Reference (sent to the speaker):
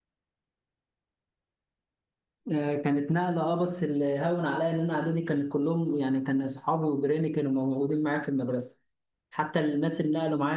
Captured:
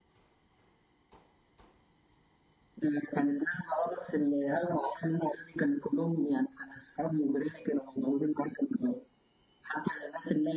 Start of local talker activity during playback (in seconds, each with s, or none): none